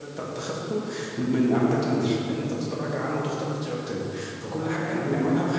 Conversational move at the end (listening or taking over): listening